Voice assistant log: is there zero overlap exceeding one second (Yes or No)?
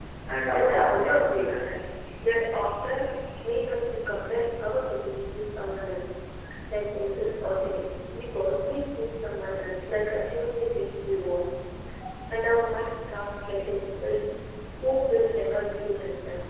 No